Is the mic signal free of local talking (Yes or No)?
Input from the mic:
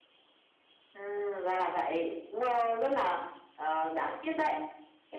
Yes